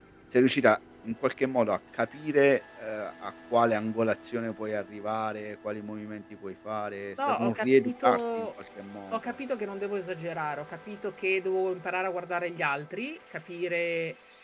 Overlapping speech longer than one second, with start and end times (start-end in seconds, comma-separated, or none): 7.3-8.5